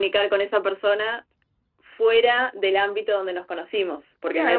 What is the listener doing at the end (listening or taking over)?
taking over